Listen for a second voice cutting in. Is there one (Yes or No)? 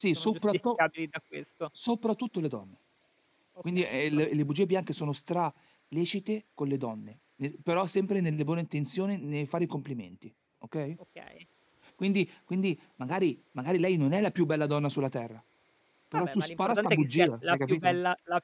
Yes